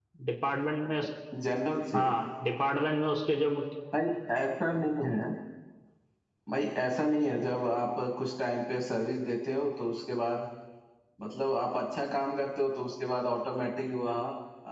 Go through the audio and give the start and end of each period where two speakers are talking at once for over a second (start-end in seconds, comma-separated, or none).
none